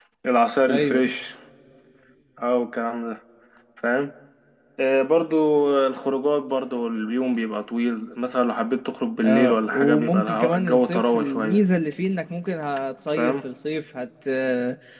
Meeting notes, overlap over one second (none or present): present